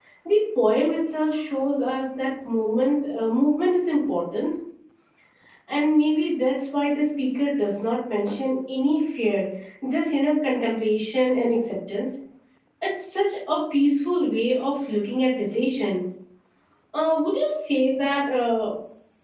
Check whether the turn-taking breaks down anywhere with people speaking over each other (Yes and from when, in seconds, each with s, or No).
No